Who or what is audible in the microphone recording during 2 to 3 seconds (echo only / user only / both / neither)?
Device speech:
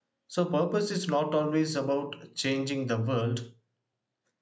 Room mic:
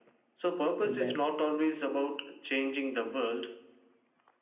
echo only